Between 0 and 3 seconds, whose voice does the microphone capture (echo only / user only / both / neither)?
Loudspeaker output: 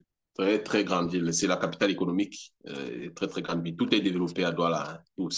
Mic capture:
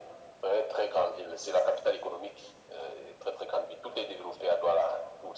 echo only